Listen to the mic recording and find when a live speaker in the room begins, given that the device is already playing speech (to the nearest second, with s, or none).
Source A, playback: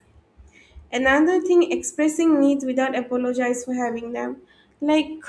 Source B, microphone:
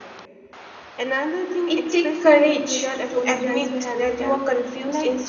2 s